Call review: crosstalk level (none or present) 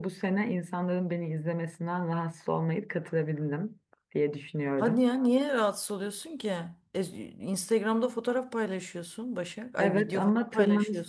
present